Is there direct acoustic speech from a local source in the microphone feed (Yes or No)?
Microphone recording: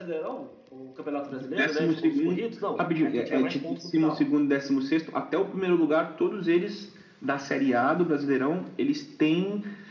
No